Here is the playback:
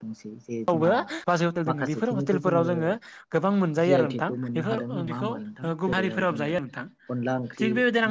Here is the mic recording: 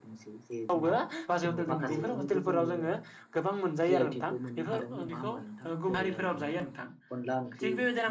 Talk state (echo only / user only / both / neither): both